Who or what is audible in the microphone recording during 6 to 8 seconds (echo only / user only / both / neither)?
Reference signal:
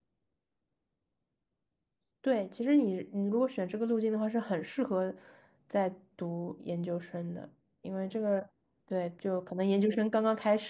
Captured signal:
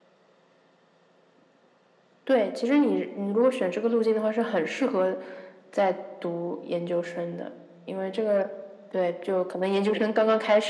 echo only